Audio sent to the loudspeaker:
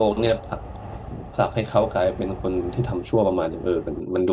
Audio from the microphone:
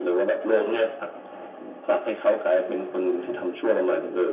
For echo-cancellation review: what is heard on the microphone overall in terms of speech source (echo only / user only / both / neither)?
echo only